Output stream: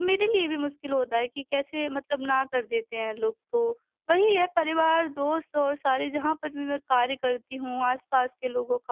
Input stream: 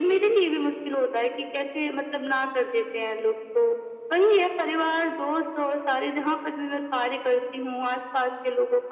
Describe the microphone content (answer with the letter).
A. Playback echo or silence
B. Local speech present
A